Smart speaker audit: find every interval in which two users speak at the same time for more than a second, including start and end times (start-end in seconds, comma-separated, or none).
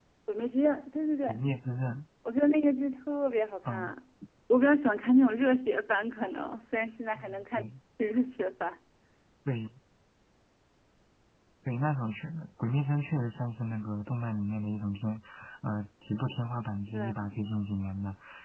none